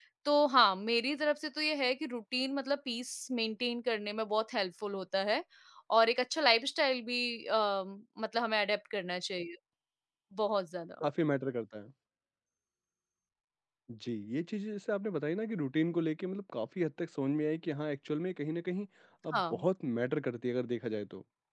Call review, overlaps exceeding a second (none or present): none